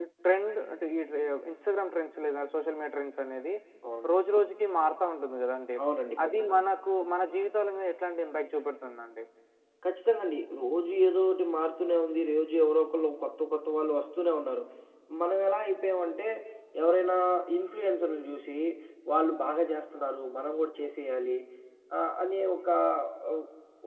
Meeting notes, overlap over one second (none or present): none